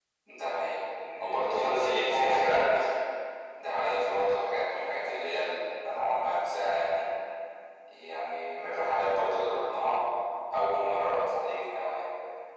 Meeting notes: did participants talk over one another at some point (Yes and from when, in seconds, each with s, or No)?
Yes, from 1.2 s